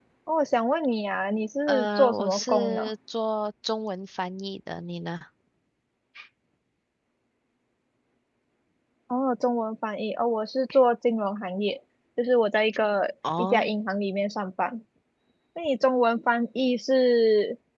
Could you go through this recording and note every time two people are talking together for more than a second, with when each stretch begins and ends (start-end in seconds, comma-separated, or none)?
1.7-2.9